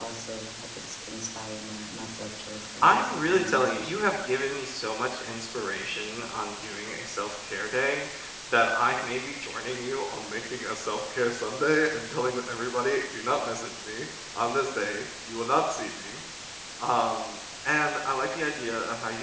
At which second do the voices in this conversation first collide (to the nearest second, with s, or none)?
3 s